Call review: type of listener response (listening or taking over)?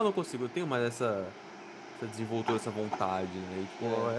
listening